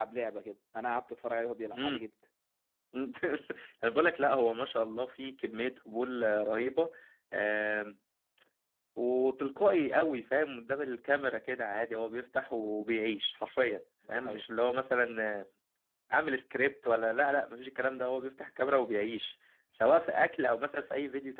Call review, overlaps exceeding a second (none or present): none